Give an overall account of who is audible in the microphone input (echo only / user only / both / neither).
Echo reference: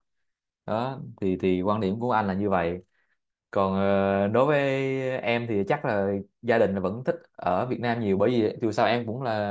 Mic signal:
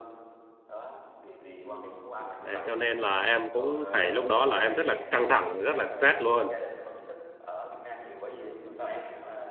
both